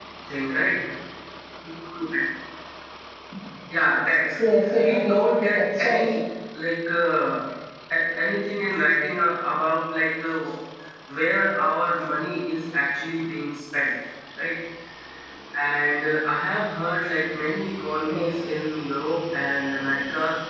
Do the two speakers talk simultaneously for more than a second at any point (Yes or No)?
Yes